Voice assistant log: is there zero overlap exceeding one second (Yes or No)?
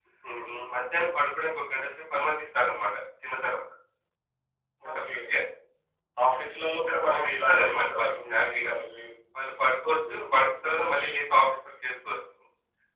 No